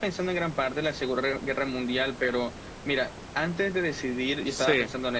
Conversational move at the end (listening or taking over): listening